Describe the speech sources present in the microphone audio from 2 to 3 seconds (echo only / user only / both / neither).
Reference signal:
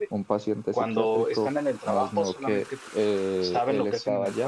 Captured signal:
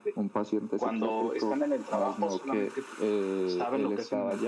echo only